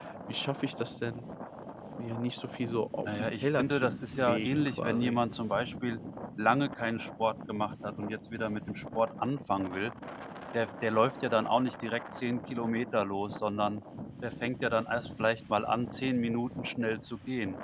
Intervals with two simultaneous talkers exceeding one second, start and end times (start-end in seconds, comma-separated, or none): 3.0-5.2